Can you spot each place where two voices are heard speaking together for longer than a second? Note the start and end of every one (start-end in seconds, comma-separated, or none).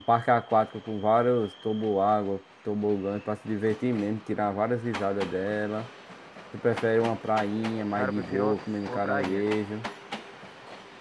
8.0-9.4